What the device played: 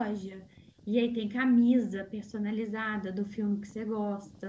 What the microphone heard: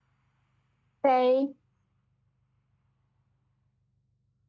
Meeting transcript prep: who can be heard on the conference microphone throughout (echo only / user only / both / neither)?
user only